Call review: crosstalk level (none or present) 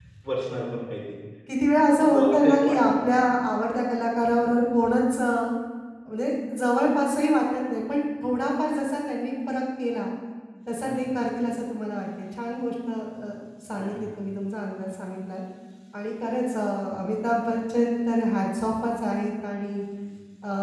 present